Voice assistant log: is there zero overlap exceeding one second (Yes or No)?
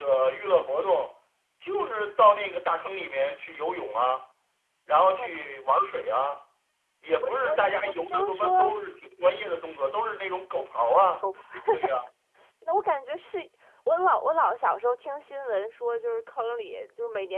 No